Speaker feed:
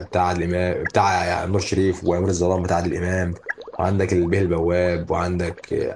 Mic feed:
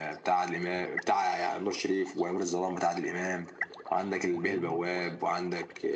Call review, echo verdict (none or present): present